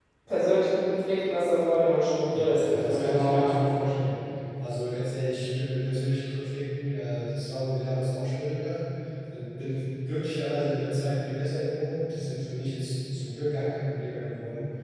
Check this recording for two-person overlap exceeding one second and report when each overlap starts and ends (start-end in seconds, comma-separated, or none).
2.3-3.5